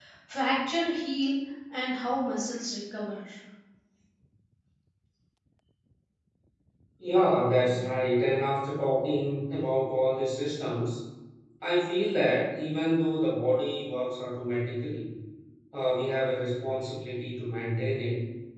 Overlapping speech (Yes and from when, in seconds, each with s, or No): No